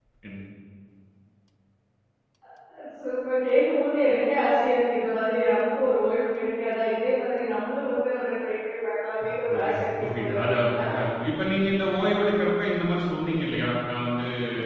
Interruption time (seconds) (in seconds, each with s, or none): 9.5 s